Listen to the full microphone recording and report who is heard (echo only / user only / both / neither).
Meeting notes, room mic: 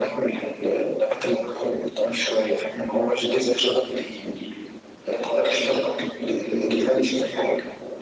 echo only